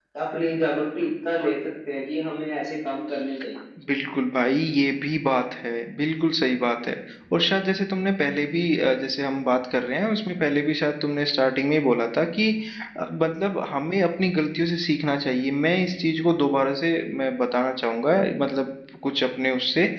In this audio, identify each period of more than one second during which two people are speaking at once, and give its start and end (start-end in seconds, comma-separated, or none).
none